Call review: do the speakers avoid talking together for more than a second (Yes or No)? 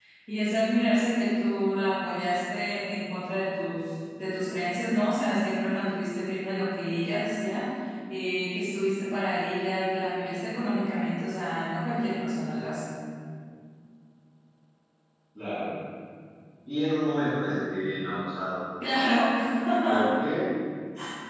Yes